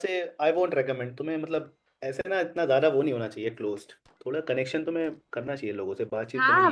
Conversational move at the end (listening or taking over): taking over